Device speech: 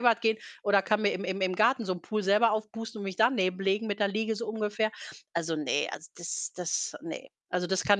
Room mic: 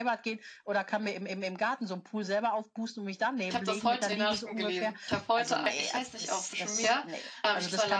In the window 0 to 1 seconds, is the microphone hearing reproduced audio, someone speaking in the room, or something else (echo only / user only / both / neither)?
echo only